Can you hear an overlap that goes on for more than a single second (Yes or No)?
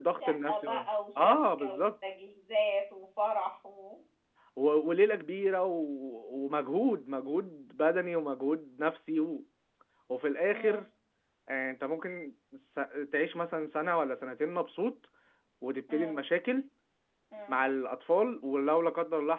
Yes